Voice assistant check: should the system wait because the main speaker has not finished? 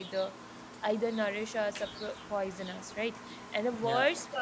Yes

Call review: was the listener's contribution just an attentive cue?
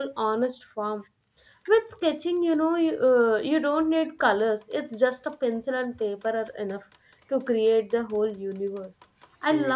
Yes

